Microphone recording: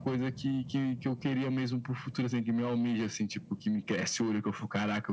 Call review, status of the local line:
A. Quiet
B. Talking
A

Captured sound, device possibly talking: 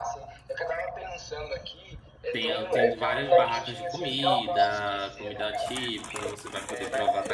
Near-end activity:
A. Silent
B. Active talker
B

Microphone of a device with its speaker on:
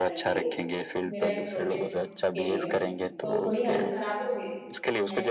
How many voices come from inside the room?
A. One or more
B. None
A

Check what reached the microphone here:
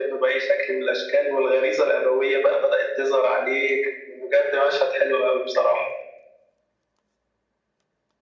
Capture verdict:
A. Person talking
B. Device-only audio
B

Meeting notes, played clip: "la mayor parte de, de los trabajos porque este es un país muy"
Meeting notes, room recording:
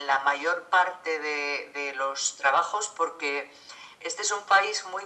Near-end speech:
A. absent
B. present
A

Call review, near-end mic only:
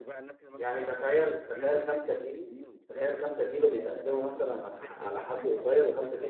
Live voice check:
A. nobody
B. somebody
B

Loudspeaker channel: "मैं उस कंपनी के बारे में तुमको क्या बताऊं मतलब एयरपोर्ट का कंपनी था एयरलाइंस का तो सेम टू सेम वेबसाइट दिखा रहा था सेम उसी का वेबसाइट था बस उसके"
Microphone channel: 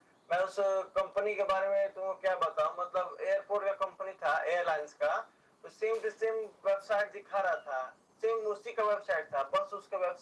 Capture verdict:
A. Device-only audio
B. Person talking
A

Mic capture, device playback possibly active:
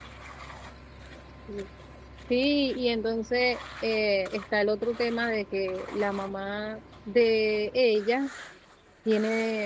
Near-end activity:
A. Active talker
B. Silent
A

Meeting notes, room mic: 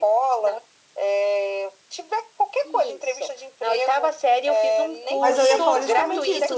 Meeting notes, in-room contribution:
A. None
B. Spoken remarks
B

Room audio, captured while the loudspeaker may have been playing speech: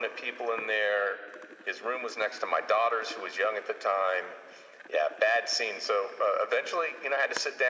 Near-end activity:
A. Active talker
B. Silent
B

